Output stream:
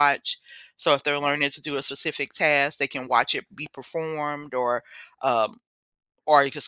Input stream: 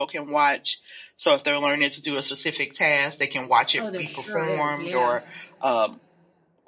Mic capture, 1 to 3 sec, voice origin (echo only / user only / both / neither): echo only